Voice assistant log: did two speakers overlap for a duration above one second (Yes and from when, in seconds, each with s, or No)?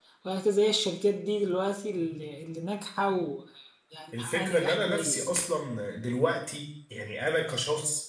Yes, from 4.1 s